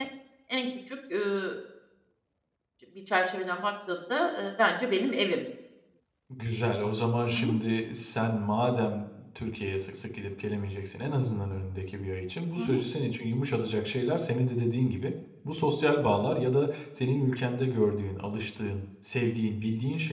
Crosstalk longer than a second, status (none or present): none